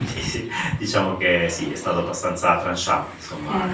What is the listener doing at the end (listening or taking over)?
taking over